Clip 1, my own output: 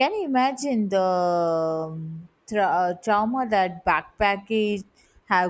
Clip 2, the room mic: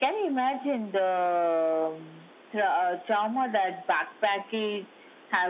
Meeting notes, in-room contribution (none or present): none